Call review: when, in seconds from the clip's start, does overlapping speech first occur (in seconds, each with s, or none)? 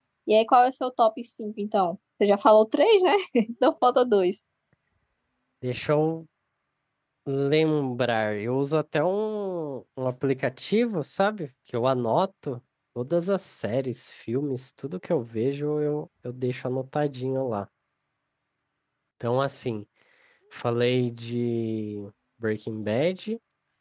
none